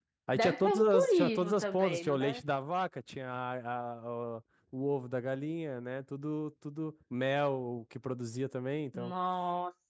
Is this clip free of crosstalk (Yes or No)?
No